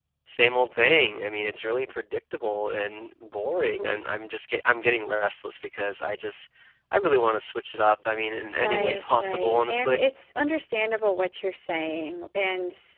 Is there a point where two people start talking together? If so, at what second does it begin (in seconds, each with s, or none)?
8.6 s